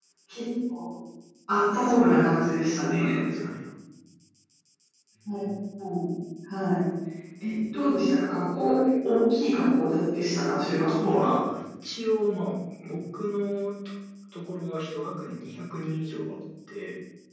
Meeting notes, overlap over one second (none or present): present